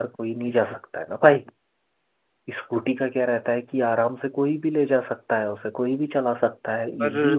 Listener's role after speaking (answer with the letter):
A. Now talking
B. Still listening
A